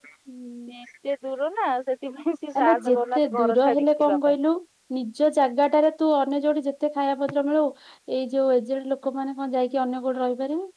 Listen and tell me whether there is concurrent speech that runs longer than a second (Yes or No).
Yes